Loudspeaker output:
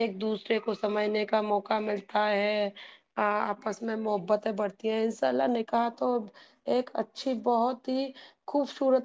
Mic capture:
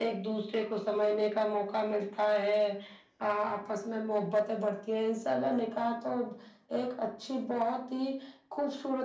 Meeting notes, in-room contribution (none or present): none